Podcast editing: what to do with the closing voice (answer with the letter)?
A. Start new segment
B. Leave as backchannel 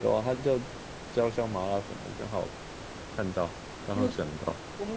A